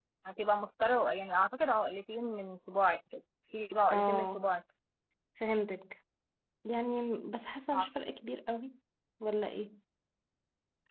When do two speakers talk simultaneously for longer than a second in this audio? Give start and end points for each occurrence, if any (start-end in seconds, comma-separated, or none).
none